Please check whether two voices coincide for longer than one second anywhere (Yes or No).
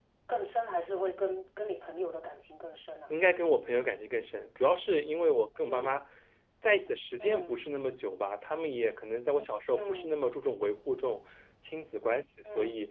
No